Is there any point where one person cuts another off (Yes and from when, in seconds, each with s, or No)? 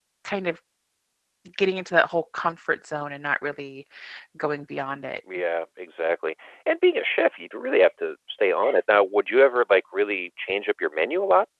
No